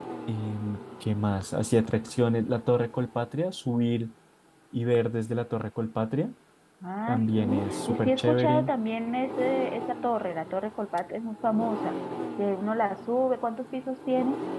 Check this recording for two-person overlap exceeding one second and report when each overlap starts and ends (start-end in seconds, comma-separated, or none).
7.1-8.7